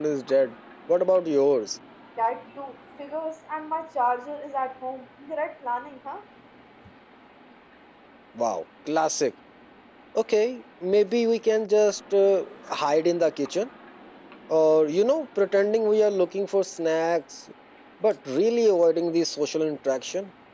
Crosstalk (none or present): none